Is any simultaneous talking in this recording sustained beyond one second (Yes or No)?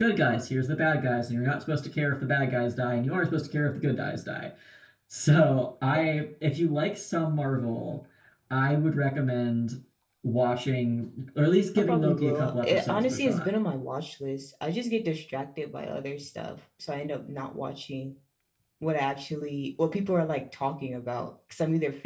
Yes